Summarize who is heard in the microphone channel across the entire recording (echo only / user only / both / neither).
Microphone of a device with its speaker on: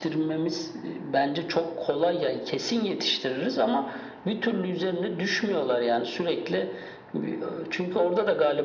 echo only